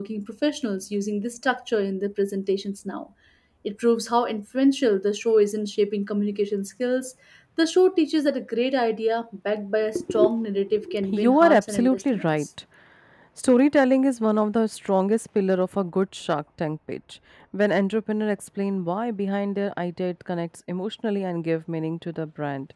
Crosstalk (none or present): present